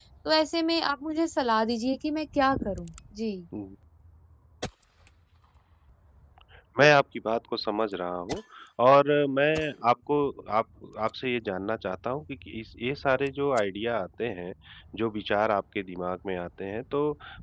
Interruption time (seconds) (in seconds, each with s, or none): none